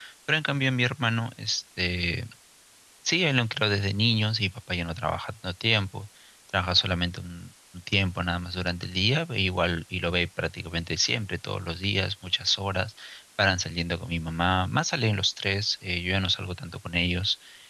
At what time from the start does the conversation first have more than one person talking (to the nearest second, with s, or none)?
none